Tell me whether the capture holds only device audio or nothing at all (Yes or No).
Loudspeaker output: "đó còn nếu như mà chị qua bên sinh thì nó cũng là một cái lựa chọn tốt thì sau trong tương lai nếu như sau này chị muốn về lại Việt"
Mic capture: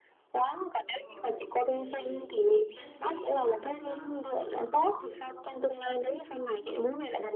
No